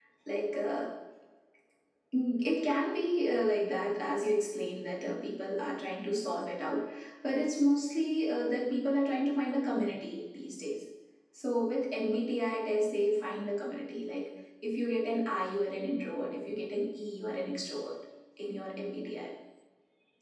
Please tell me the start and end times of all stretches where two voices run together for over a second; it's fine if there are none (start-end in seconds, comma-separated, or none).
none